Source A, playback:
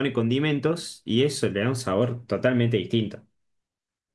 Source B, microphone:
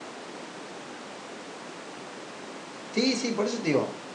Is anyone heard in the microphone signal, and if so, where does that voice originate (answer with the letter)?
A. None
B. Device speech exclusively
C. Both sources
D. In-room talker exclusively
D